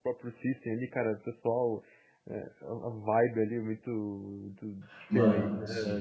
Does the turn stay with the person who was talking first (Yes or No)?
No